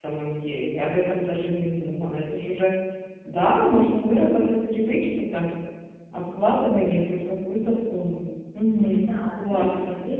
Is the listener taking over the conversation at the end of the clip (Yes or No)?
Yes